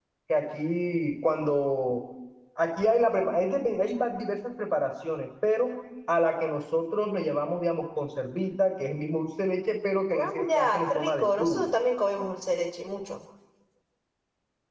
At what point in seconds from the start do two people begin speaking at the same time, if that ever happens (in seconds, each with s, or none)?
10.1 s